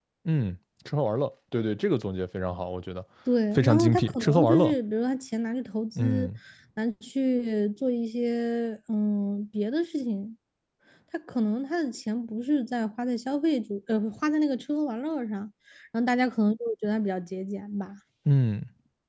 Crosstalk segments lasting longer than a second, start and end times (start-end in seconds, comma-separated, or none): 3.5-4.8